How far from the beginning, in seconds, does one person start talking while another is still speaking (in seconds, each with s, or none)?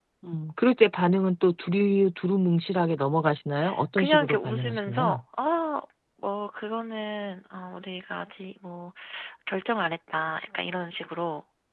4.0 s